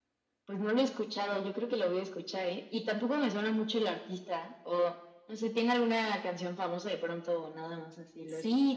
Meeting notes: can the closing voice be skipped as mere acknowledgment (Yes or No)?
No